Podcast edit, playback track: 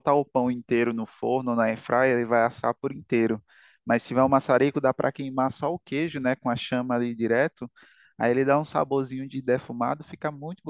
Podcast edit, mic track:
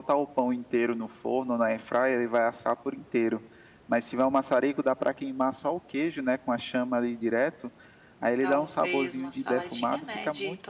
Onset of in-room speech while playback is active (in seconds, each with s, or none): 8.4 s